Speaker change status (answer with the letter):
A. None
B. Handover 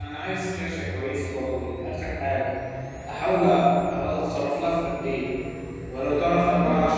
A